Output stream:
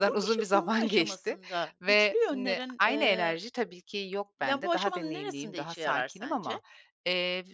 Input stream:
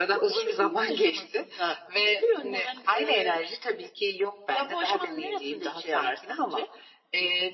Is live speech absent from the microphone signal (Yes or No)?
Yes